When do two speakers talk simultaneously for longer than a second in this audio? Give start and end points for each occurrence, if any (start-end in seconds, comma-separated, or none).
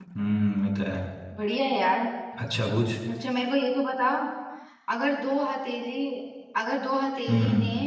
none